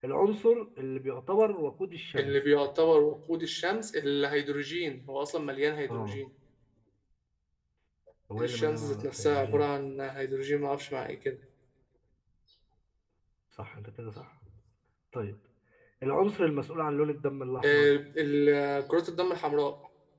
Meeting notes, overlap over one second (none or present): present